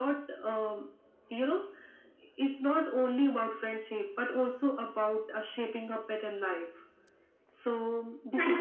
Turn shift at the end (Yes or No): Yes